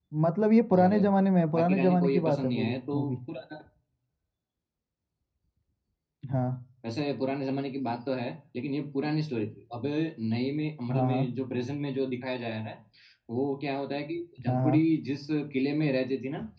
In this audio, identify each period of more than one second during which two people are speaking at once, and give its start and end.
1.6-3.1

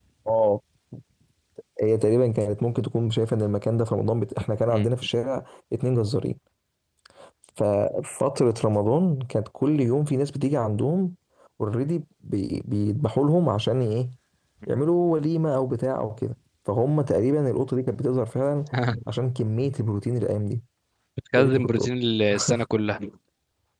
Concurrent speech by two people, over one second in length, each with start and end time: none

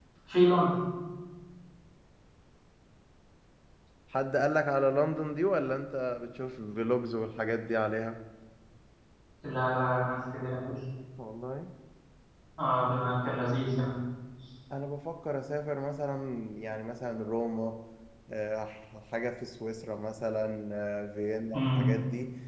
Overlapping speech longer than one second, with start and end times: none

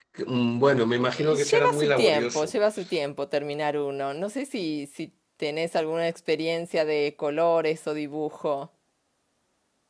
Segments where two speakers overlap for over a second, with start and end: 1.2-2.5

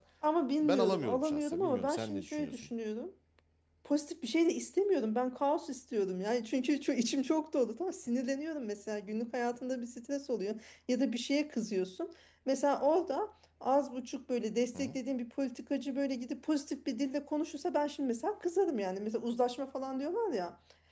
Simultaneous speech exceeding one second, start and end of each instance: 0.6-2.7

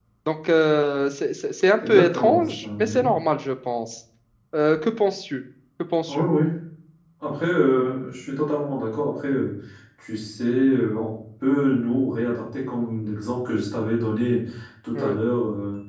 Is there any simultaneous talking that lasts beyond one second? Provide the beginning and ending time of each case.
1.9-3.1

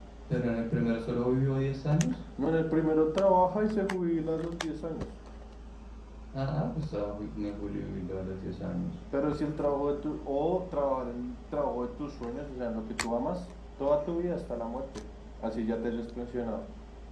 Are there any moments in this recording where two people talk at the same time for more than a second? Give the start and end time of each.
none

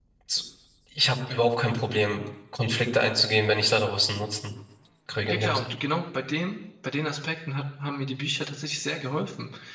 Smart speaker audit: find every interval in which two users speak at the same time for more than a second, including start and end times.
none

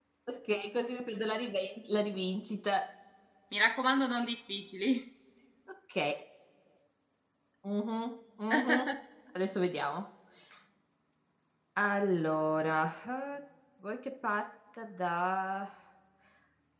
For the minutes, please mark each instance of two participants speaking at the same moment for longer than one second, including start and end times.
none

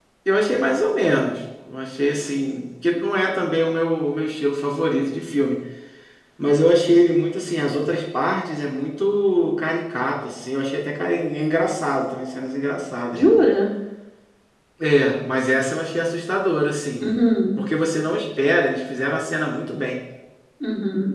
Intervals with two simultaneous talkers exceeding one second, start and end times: none

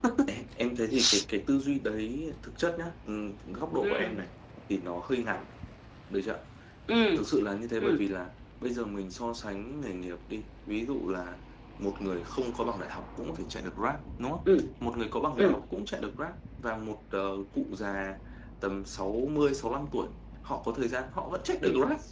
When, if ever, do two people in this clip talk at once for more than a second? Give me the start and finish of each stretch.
none

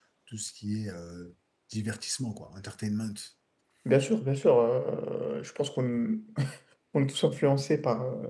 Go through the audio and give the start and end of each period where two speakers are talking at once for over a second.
none

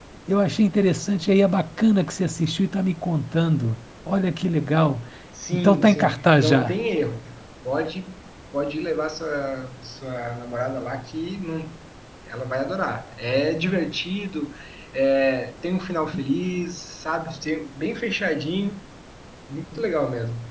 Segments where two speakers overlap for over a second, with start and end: 5.5-6.8

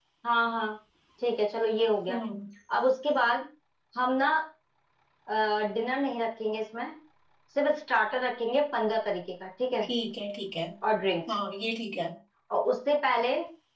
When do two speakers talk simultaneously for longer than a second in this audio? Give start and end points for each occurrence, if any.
none

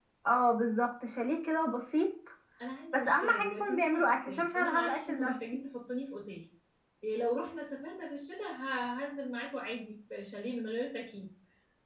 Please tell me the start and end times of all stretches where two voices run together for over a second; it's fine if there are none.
2.9-5.4

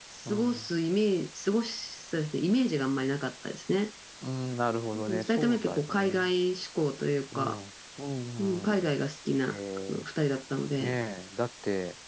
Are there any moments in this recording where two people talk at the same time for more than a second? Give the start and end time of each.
4.9-6.2

